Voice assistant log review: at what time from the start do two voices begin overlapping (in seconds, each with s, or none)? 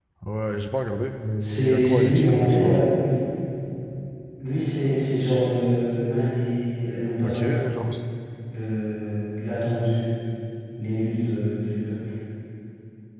1.4 s